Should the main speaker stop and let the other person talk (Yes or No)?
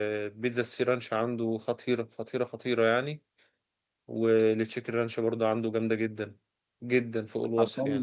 Yes